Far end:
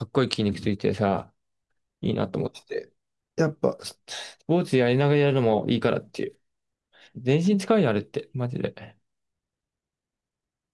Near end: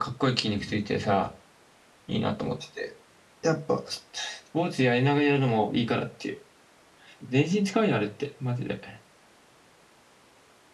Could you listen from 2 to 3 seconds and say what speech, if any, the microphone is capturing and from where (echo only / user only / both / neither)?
echo only